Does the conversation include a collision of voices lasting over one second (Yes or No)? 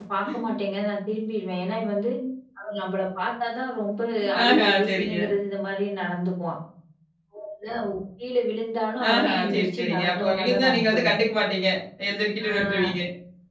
Yes